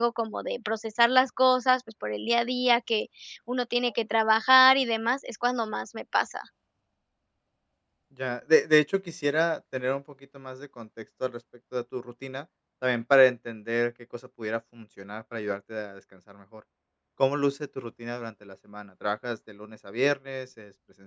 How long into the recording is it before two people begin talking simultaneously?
none

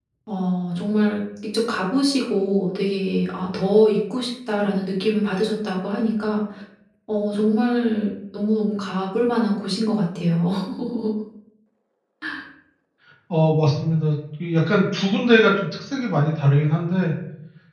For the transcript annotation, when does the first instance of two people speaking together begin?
none

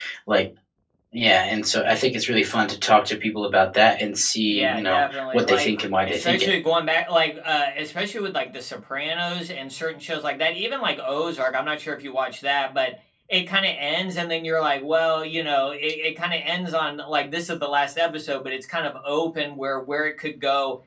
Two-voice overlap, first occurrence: 4.5 s

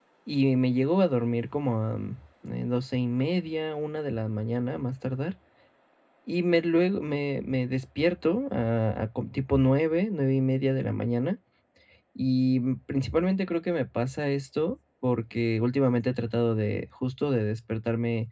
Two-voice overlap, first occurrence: none

